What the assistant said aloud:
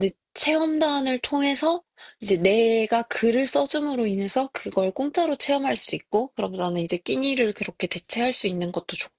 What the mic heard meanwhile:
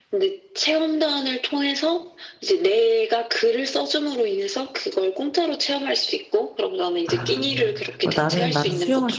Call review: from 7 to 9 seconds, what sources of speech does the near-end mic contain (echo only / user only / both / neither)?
both